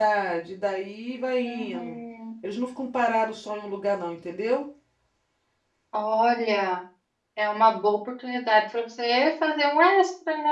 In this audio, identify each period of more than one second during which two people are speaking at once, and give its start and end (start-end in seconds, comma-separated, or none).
none